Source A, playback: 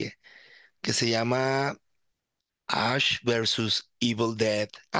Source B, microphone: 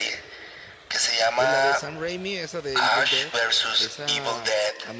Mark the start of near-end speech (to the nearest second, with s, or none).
1 s